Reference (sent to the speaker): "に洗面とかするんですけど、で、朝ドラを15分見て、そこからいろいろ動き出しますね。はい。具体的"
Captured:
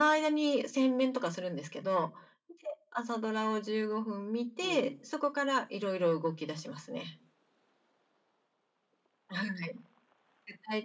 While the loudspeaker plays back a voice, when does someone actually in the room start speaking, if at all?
4.6 s

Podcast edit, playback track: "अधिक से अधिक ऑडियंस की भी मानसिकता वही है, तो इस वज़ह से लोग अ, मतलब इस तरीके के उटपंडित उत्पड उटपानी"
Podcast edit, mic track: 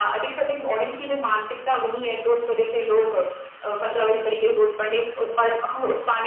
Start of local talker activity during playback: none

